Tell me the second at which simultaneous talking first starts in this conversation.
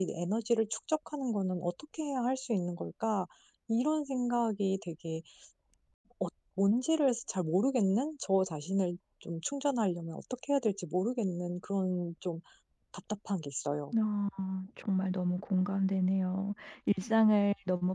none

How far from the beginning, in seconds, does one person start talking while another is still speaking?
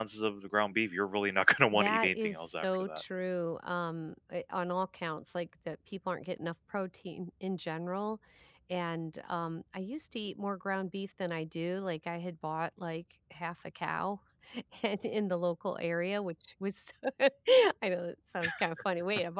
1.7 s

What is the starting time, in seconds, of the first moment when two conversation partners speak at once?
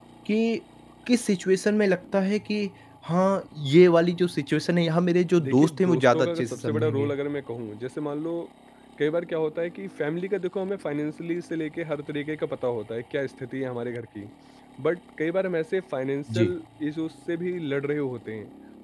5.4 s

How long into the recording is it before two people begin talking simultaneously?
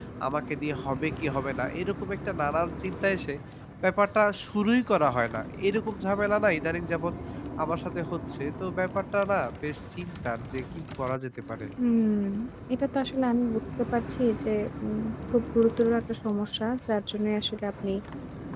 none

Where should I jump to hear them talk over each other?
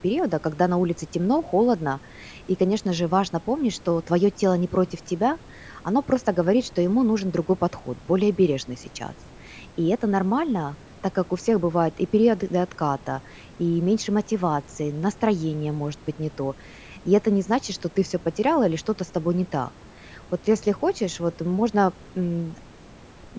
none

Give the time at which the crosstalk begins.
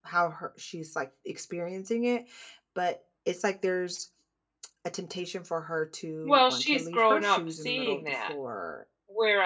6.2 s

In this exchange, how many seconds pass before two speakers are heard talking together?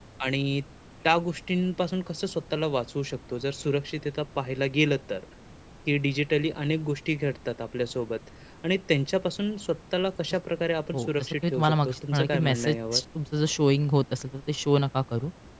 10.9 s

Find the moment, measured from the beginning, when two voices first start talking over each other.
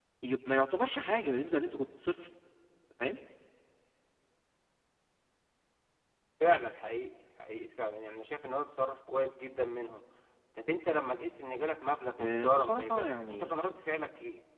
12.2 s

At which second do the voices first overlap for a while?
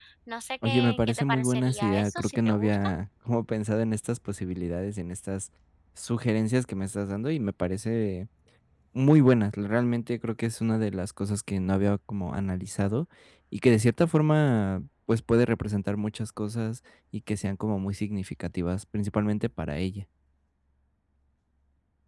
0.7 s

